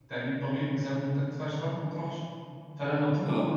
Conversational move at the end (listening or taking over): listening